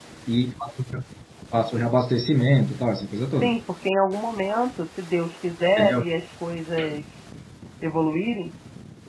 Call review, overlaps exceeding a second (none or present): none